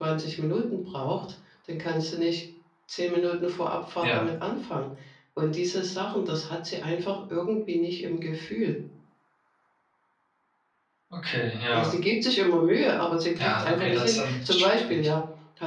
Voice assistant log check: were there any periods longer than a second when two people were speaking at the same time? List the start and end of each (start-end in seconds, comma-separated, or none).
13.4-14.8